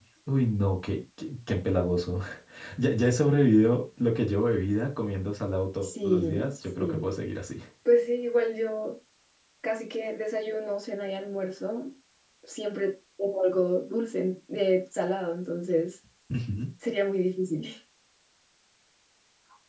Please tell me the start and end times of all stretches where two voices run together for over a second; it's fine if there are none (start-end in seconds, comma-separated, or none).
5.8-7.1